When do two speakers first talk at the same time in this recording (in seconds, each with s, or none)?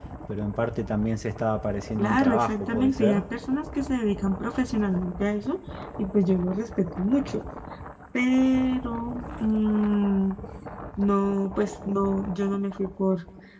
2.0 s